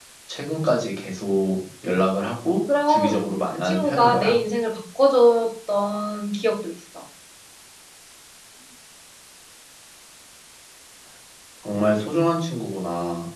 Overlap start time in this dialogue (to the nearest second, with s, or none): 3 s